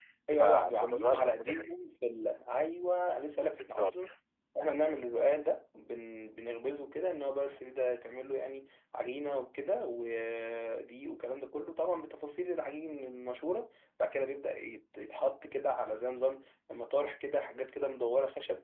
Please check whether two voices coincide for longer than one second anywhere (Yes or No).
Yes